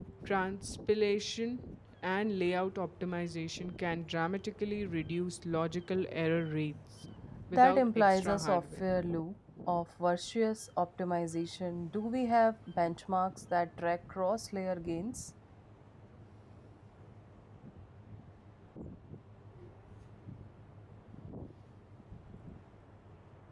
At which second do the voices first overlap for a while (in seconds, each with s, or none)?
7.5 s